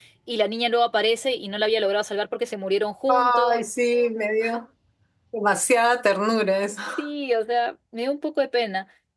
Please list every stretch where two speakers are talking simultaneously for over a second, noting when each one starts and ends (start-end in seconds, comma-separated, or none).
none